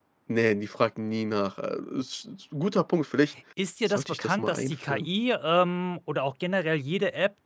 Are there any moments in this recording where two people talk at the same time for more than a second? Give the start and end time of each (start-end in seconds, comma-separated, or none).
3.9-5.1